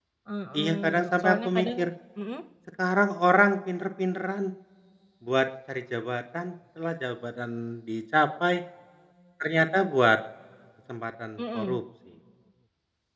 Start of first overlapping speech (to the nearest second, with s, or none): 1 s